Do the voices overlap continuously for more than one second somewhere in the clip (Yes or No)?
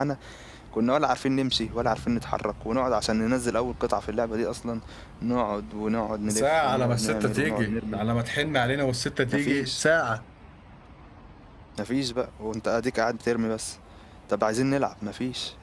Yes